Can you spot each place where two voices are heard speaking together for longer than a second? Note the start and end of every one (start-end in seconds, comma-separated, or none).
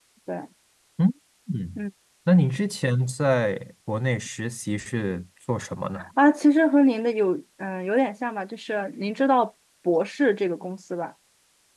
none